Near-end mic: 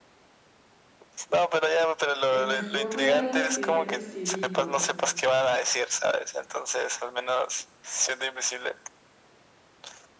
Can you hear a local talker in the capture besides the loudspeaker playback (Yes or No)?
Yes